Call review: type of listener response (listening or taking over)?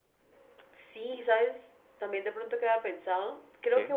listening